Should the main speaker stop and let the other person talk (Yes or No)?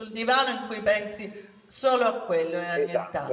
Yes